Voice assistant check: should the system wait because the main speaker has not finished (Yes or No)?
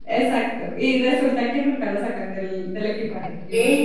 No